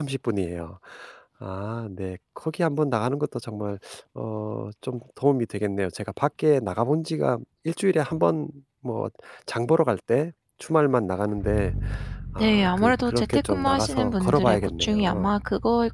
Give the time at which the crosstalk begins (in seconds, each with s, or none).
12.4 s